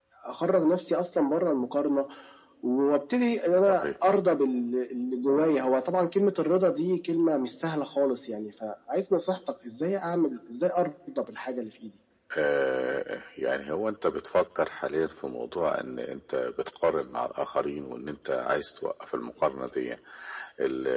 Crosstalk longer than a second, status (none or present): none